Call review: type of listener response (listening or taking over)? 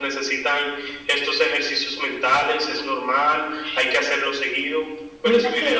taking over